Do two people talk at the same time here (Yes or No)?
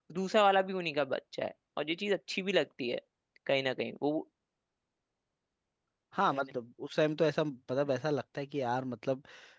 No